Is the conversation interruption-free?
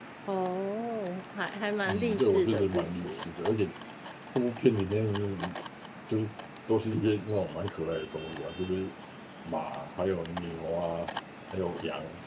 No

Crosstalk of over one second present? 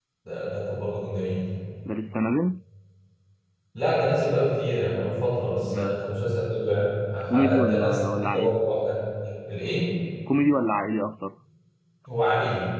Yes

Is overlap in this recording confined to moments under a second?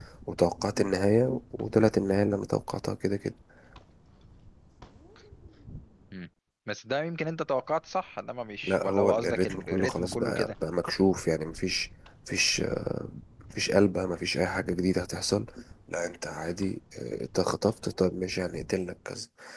No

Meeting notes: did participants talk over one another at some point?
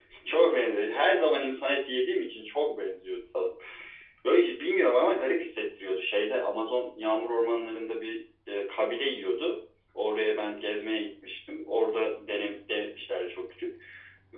No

